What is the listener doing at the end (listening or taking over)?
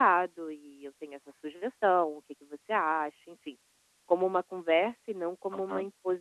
taking over